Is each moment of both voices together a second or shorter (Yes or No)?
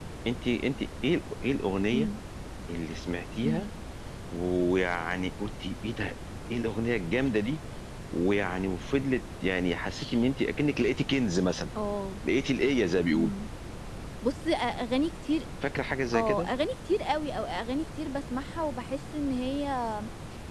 Yes